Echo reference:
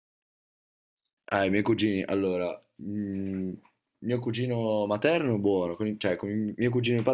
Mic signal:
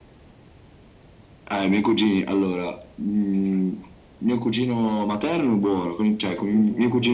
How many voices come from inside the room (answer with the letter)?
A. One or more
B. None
A